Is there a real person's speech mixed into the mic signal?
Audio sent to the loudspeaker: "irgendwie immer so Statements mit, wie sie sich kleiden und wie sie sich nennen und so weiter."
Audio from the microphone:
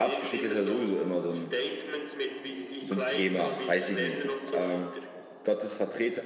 Yes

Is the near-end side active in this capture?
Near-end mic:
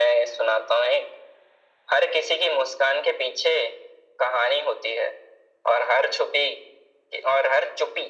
No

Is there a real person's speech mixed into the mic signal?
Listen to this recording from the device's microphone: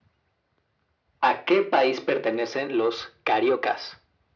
No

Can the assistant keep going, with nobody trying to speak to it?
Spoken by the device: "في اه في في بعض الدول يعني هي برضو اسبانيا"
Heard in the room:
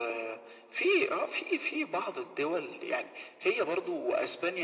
Yes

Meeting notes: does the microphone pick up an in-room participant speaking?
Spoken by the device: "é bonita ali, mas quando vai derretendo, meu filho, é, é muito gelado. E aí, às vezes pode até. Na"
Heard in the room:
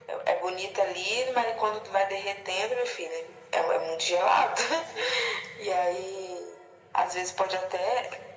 No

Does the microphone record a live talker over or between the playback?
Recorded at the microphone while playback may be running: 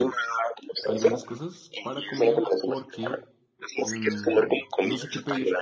Yes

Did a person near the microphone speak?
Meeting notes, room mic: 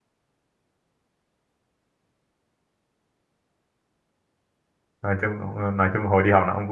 Yes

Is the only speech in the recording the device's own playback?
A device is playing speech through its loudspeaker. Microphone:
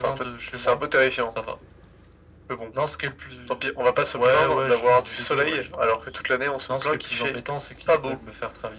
Yes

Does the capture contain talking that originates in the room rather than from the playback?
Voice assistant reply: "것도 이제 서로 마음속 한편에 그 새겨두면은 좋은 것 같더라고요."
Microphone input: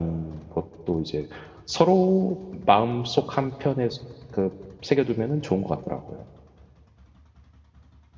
No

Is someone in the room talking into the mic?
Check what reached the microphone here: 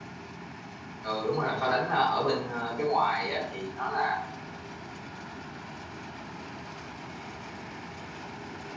Yes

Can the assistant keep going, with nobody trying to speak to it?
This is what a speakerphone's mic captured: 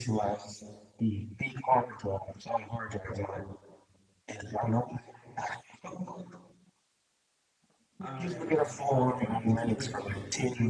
No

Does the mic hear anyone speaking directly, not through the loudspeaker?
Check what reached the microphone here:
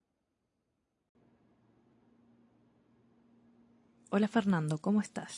Yes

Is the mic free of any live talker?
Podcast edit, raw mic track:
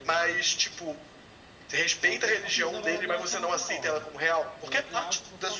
No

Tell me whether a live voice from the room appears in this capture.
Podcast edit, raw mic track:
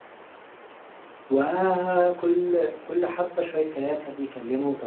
Yes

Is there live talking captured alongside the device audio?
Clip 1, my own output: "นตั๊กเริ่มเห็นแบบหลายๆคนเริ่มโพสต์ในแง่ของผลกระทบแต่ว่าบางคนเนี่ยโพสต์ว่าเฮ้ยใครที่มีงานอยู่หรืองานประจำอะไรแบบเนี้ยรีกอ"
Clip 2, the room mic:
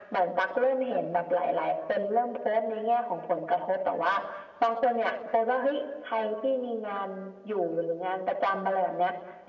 No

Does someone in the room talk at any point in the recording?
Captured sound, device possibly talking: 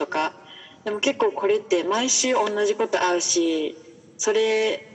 No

